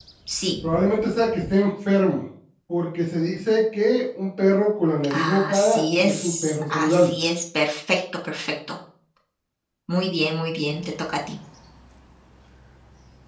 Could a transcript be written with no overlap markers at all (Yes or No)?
No